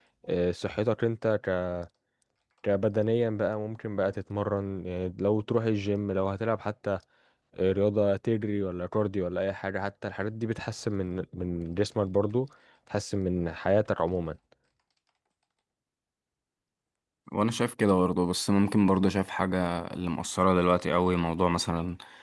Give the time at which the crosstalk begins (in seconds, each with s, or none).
none